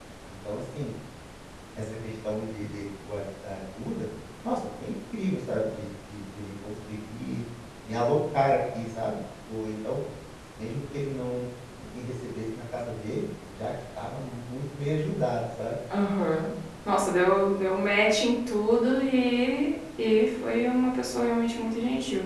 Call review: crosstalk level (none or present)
none